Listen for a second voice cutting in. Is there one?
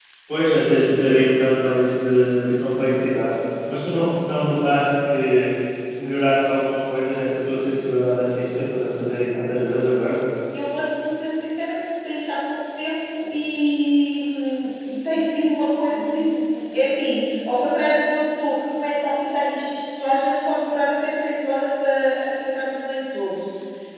No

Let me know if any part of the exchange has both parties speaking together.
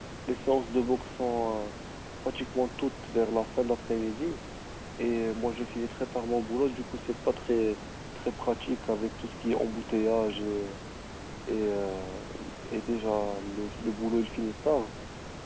No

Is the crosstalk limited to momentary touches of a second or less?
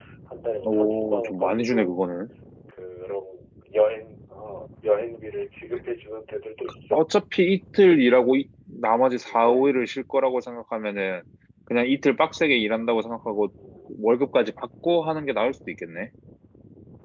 No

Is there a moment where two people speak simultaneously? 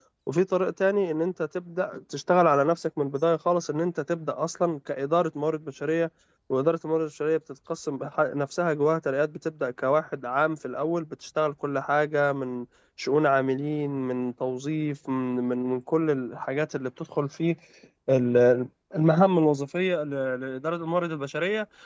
No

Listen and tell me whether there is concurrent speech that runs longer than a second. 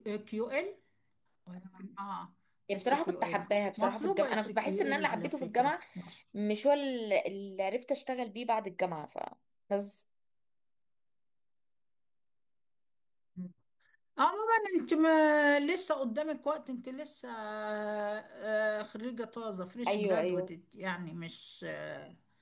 Yes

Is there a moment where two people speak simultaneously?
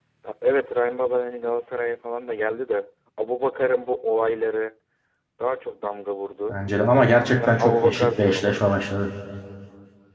Yes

